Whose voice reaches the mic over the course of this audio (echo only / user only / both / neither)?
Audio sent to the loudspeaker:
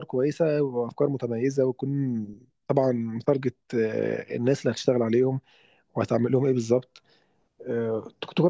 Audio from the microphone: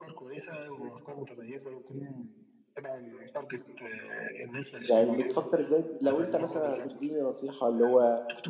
both